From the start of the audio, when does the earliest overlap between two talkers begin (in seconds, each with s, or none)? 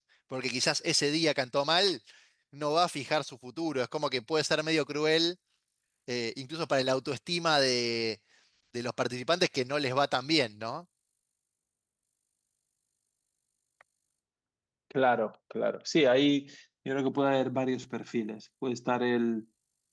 none